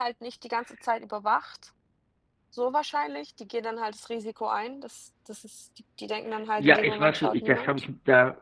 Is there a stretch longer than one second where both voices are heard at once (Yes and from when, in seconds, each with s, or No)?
Yes, from 6.6 s